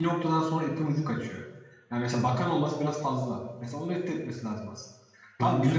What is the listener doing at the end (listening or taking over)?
listening